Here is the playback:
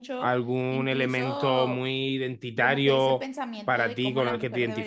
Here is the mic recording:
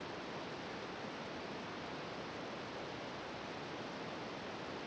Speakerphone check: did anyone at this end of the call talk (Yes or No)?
No